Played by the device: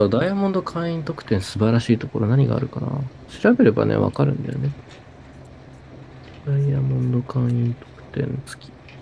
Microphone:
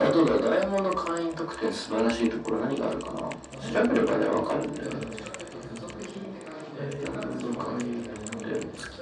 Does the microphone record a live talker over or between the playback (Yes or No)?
Yes